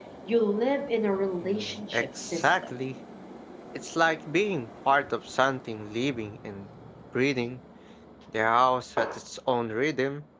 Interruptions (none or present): present